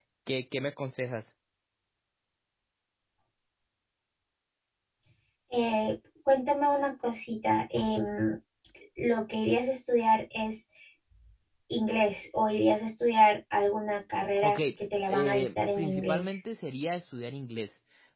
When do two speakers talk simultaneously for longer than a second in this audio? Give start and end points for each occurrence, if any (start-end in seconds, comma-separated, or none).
15.1-16.4